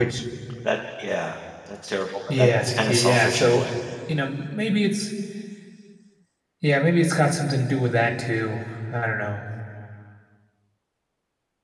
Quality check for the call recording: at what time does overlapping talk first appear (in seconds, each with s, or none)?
2.3 s